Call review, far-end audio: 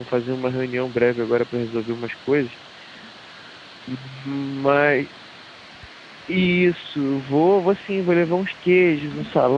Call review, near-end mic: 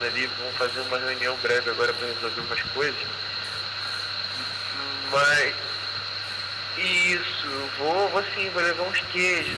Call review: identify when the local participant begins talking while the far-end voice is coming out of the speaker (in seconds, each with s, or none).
none